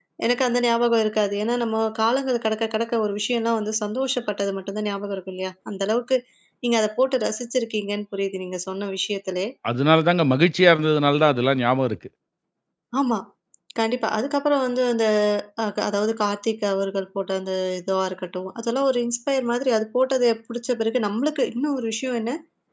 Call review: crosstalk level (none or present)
none